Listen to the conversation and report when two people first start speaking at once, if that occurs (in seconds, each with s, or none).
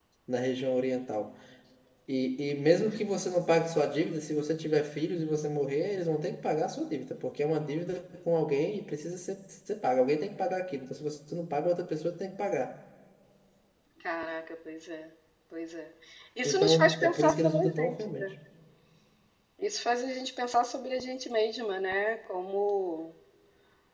16.4 s